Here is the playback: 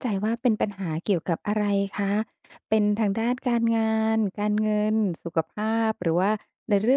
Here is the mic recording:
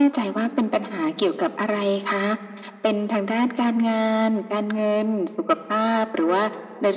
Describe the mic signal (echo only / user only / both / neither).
echo only